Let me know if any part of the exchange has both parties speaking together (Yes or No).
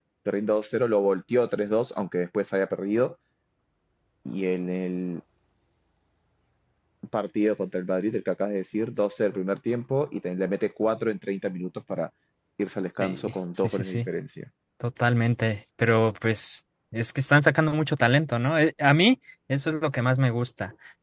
Yes